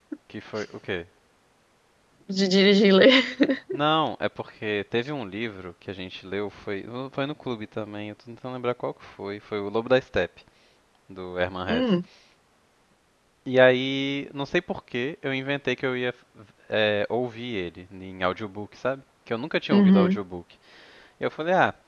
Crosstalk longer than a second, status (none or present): none